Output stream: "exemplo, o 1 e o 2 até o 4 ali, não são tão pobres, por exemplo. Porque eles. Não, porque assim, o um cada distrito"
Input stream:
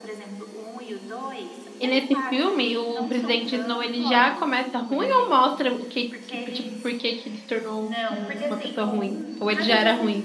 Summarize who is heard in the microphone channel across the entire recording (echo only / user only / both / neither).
both